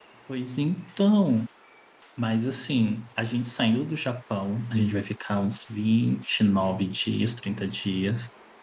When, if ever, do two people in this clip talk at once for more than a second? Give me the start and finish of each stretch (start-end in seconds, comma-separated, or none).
none